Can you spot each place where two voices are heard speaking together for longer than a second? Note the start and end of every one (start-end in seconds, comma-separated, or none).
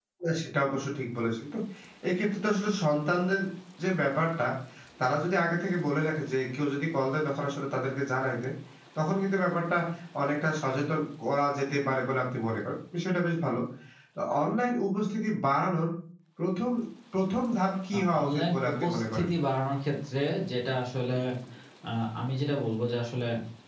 17.9-19.3